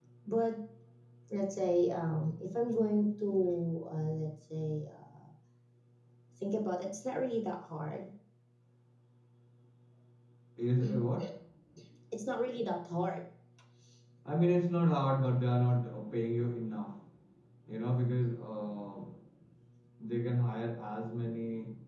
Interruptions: none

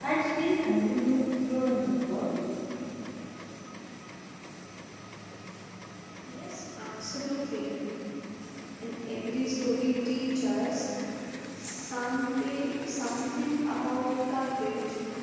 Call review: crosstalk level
none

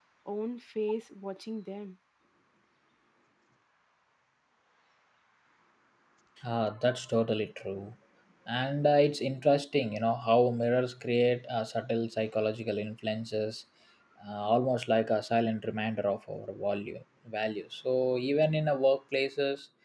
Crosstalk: none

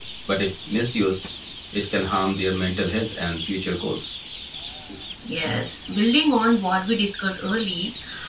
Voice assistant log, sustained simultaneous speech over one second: none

